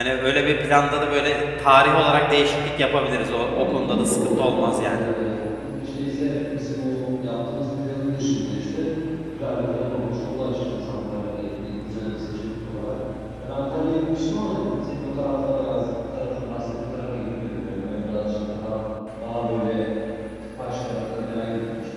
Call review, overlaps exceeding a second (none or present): present